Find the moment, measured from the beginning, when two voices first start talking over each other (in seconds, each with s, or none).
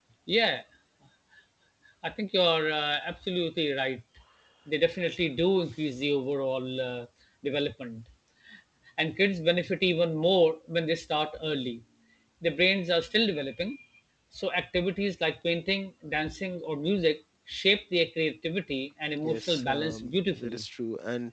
19.2 s